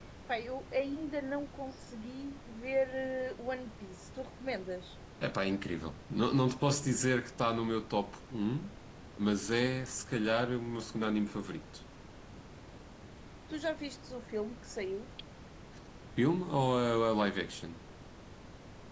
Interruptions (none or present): none